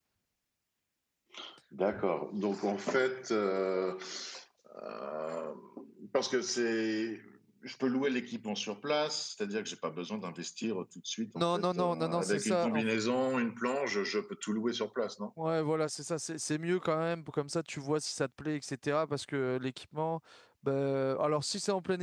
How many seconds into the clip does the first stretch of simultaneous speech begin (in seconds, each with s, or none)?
11.3 s